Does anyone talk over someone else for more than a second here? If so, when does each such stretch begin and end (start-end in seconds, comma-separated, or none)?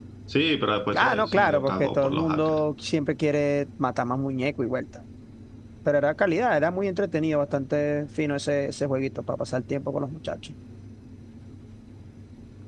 1.0-2.6